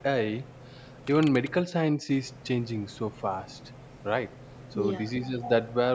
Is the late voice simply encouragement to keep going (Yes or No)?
Yes